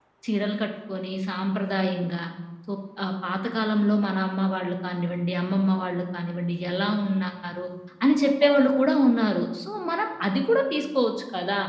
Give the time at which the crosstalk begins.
none

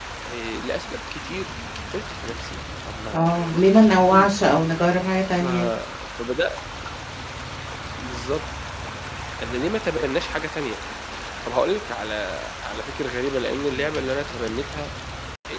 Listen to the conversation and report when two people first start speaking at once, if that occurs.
3.1 s

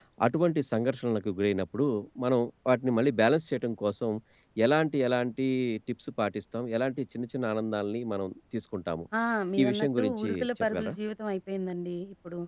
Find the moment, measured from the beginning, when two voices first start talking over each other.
9.6 s

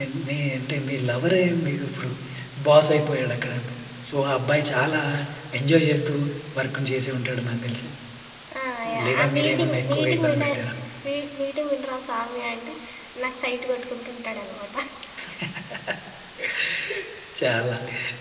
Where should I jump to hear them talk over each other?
9.0 s

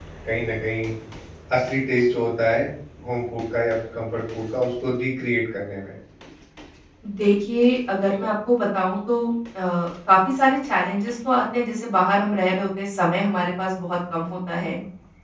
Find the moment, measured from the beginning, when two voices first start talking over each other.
none

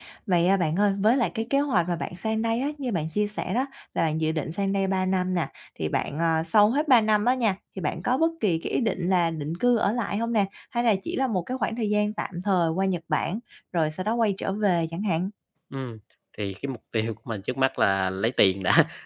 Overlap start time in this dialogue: none

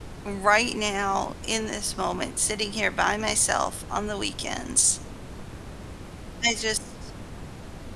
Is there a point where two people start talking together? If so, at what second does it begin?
none

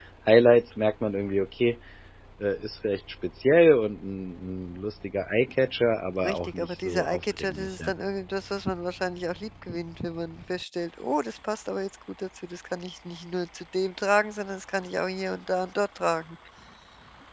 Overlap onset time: 6.2 s

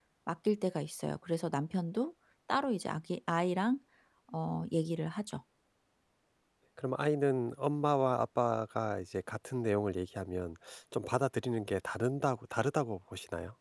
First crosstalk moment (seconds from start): none

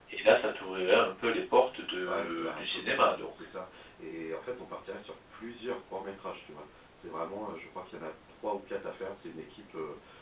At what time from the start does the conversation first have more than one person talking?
2.0 s

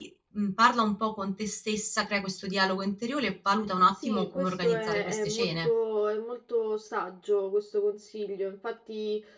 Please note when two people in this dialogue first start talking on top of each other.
3.9 s

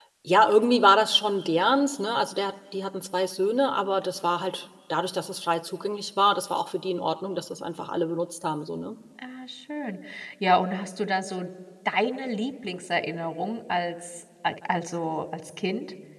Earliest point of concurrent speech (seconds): none

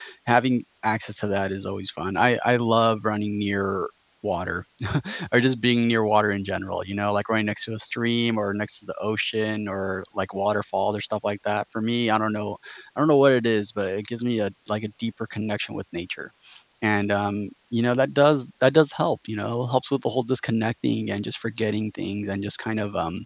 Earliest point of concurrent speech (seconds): none

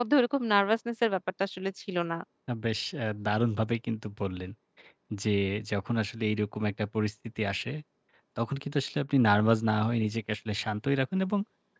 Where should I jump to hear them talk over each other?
none

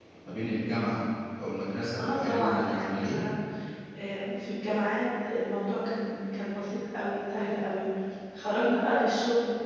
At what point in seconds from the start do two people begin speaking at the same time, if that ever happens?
2.0 s

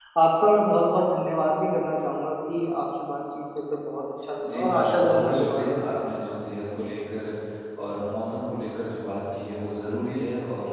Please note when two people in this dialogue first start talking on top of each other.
4.4 s

